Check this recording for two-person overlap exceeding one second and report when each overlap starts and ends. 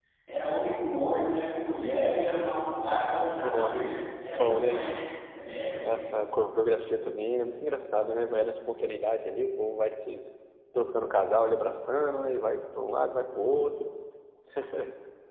none

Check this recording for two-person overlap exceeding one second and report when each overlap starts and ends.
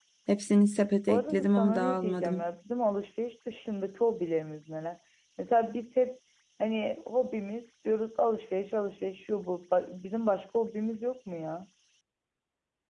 1.1-2.4

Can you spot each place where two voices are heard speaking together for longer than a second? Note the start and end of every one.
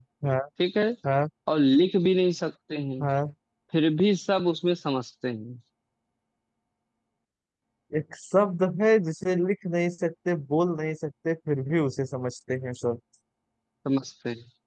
none

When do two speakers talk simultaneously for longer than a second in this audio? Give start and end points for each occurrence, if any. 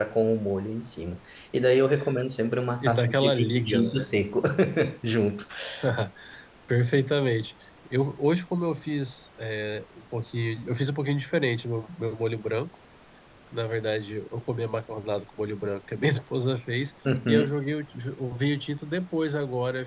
2.8-4.1

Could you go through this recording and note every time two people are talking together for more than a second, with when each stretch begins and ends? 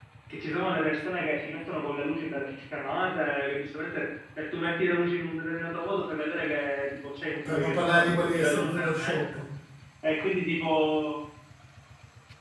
7.5-9.2

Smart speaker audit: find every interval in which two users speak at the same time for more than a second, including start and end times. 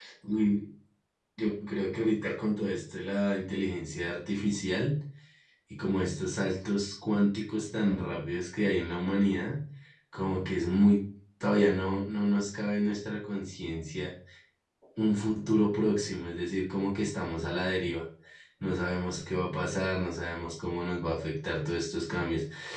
none

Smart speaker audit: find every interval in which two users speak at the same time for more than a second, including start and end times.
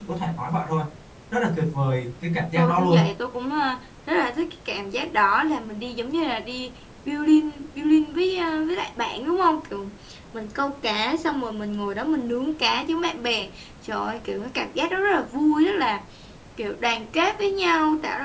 none

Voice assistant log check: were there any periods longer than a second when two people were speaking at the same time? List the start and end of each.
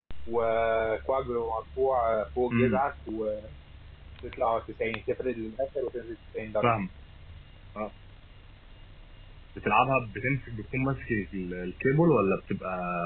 none

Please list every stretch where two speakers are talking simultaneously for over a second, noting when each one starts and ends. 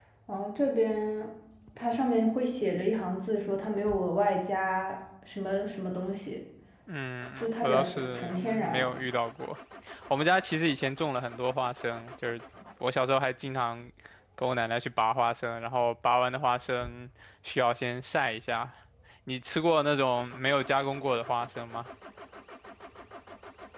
7.4-8.9

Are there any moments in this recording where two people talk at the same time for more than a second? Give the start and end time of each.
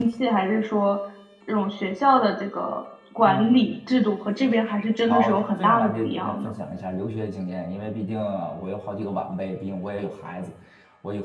5.1-6.5

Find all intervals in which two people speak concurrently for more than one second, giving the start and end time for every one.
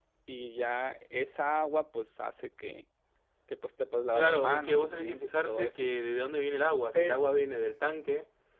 4.1-5.9

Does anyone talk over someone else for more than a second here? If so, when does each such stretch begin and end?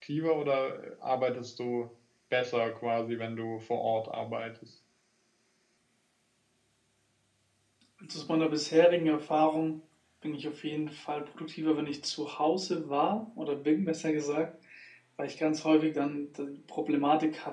none

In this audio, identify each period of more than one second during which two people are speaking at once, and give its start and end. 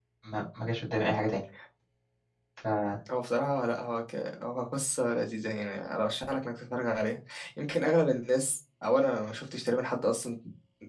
none

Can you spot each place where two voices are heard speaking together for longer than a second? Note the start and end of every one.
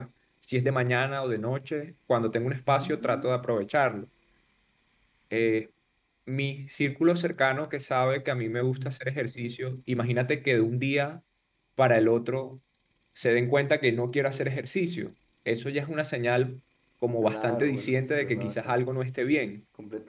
17.2-18.8

